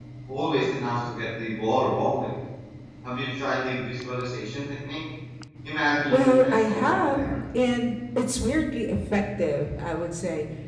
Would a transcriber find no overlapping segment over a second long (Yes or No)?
No